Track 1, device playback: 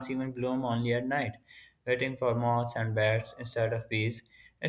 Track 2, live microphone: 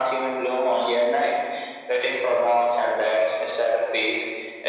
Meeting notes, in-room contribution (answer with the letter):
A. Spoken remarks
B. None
B